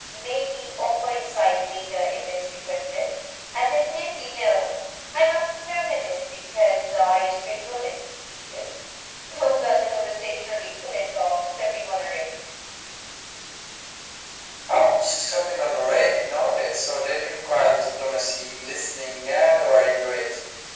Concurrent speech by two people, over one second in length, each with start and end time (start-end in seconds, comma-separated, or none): none